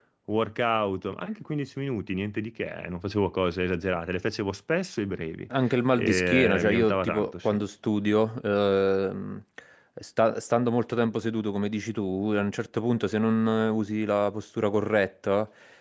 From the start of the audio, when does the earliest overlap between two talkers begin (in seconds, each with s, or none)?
5.9 s